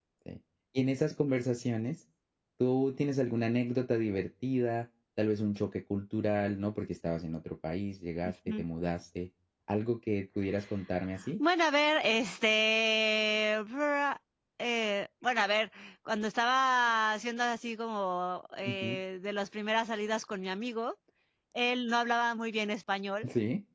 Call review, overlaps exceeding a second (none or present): none